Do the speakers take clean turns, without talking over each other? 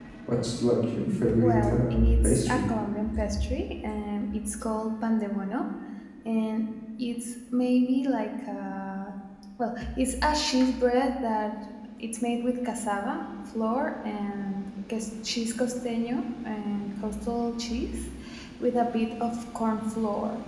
No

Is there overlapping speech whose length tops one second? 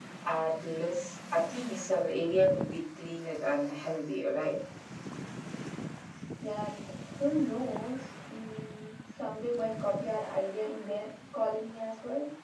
No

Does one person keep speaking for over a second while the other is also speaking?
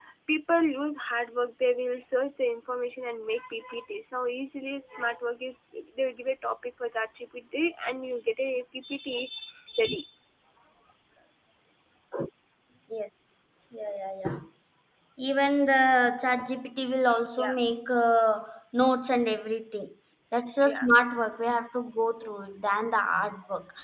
No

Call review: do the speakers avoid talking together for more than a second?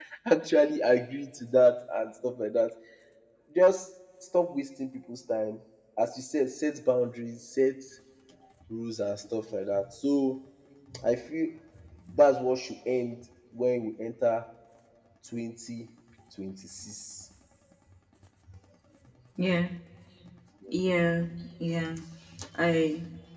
Yes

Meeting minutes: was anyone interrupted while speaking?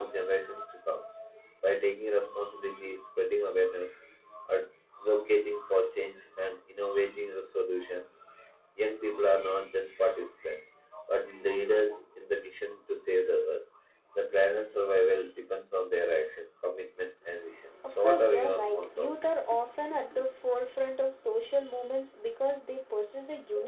Yes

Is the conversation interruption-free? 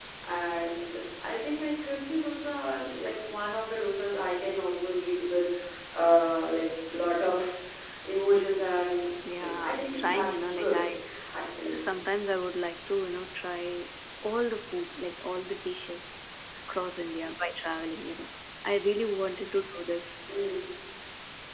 No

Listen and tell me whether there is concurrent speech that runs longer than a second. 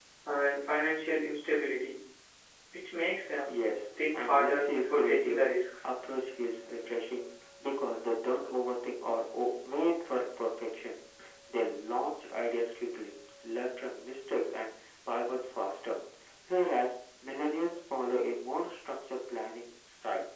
Yes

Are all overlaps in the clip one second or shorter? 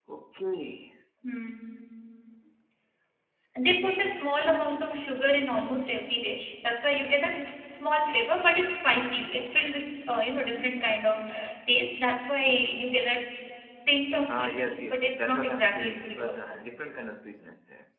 No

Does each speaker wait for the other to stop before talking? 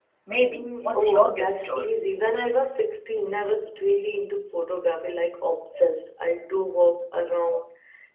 No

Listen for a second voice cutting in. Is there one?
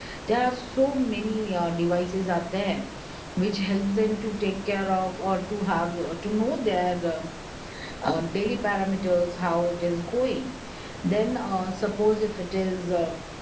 No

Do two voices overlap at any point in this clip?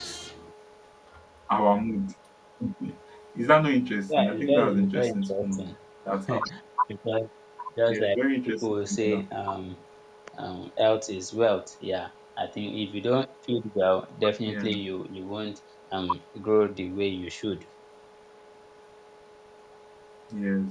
Yes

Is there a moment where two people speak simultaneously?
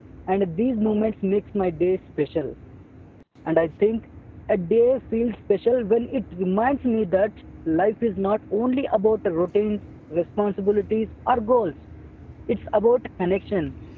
No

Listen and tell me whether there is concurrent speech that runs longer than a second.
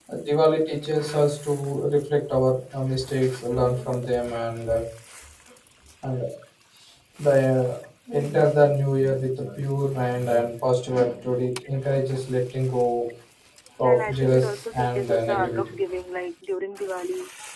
Yes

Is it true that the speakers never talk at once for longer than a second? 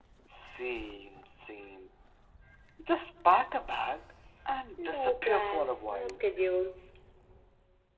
No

